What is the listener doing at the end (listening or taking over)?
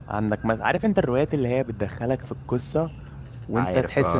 listening